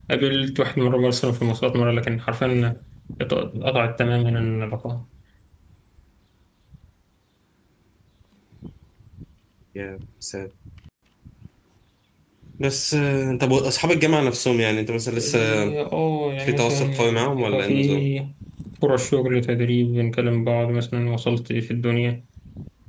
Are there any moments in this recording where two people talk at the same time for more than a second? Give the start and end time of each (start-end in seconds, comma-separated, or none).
16.4-18.1